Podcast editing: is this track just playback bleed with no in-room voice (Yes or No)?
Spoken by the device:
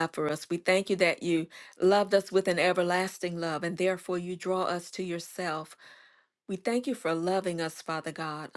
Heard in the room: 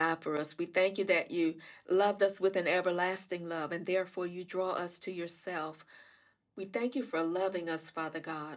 Yes